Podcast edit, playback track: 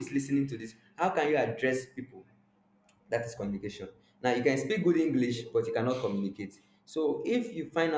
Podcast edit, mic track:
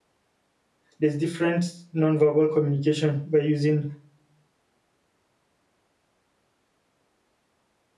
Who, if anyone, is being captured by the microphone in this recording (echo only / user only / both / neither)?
user only